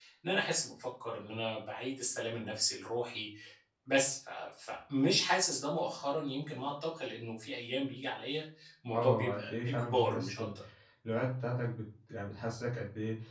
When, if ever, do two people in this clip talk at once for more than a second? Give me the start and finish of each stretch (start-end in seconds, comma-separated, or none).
8.9-10.4